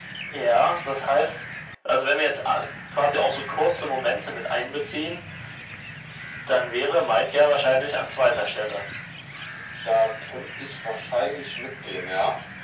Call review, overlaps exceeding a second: none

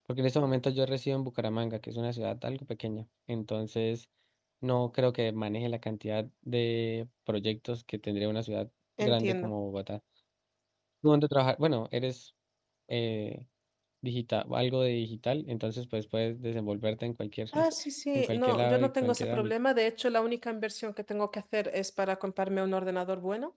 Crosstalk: present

